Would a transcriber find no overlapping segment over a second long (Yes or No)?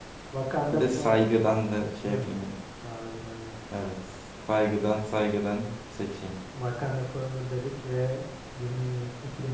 Yes